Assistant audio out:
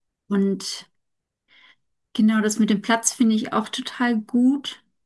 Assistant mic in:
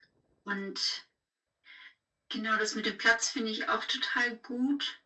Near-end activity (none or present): none